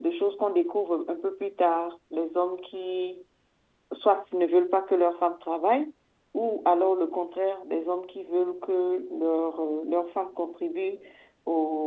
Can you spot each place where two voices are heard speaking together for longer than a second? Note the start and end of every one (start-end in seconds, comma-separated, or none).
none